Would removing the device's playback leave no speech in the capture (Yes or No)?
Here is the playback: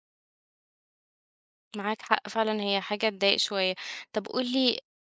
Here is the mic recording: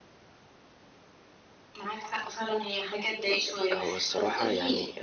No